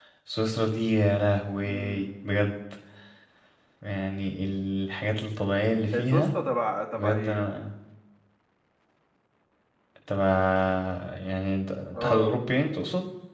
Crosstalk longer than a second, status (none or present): none